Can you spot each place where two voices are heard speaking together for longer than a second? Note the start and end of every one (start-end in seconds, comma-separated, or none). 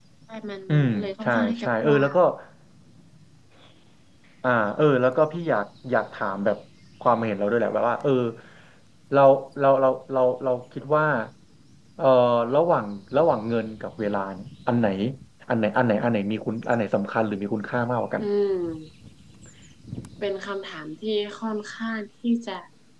0.7-2.1